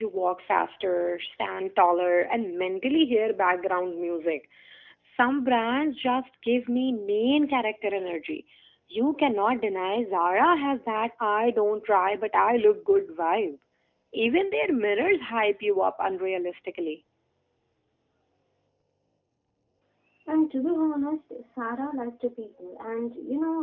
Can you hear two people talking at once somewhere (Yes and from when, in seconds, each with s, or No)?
No